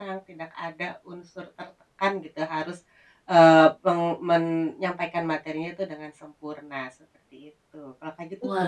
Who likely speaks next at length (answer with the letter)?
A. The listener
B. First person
A